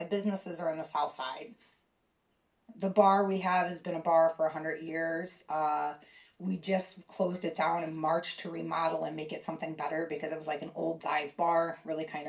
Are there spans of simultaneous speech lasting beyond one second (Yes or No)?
No